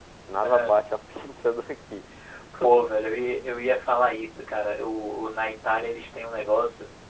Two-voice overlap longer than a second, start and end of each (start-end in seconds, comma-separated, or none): none